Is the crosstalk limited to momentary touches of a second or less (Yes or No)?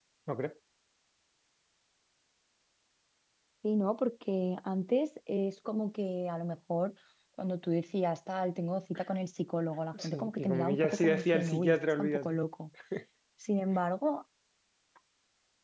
No